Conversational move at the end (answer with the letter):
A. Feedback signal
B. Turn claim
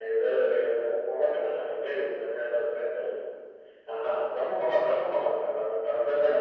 B